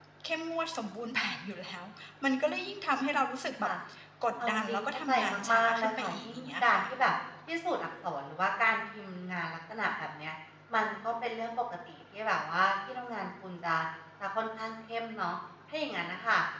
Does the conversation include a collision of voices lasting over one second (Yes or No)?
Yes